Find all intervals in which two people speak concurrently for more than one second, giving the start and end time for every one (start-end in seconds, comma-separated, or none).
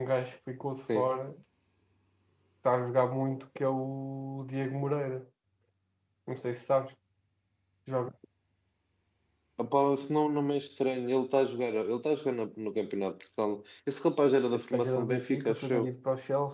14.5-15.9